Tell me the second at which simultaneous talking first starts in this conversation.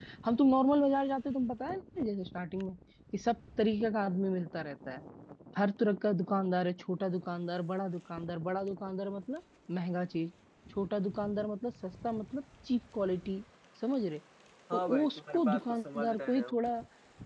14.7 s

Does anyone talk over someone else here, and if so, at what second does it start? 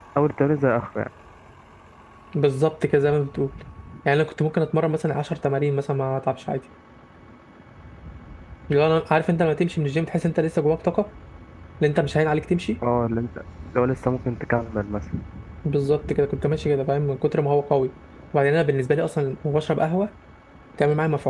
none

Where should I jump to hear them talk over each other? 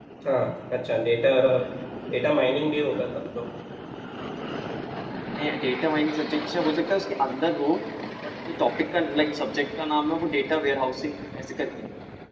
none

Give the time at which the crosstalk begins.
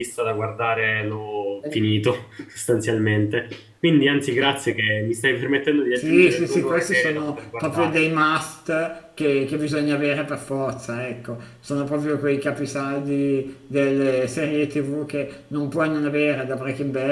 6.0 s

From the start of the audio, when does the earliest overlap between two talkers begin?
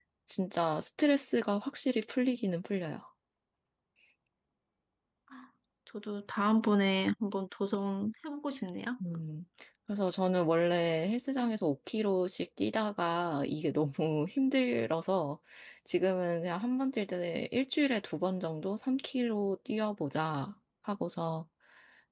none

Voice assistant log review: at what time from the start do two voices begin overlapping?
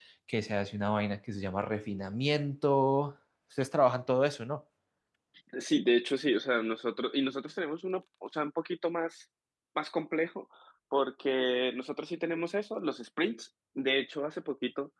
none

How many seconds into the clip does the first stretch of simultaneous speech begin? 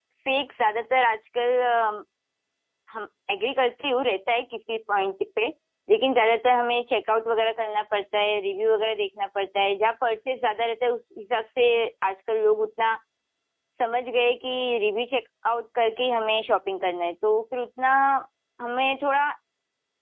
none

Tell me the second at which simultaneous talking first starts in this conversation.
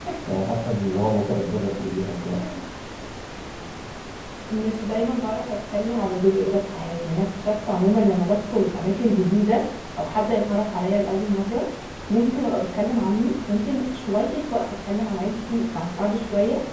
none

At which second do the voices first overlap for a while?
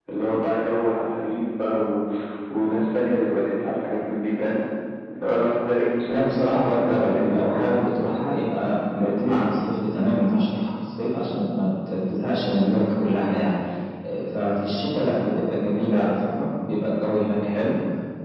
6.1 s

